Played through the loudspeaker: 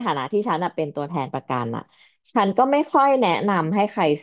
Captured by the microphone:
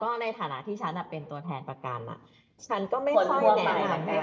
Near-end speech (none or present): present